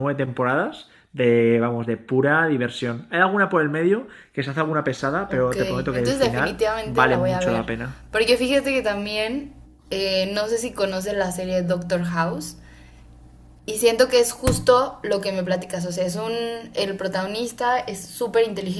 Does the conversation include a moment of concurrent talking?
Yes, from 5.3 s

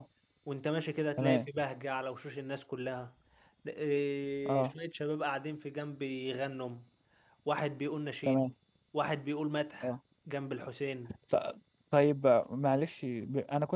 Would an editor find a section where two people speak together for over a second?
No

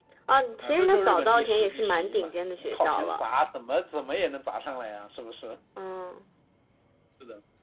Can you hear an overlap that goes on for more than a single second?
Yes, from 0.6 s

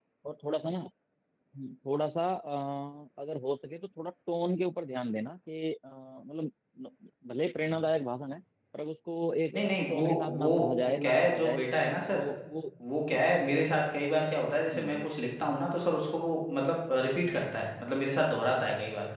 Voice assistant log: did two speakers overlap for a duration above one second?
Yes, from 9.5 s

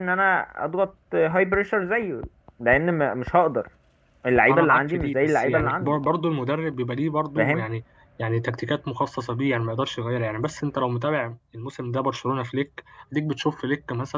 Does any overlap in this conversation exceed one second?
Yes, from 4.5 s

